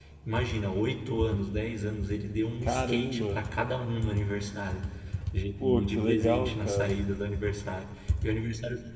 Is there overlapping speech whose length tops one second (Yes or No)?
Yes